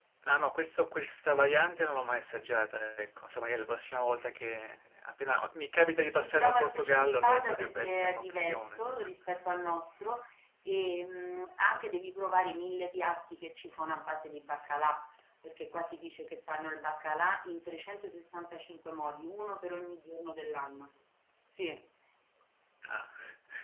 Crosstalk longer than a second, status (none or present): present